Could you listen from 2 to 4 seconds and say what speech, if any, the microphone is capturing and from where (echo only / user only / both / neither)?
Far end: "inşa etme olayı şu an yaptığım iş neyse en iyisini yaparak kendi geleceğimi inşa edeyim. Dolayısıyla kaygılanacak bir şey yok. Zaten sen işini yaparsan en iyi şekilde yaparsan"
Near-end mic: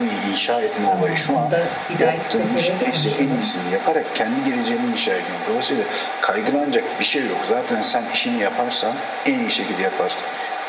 both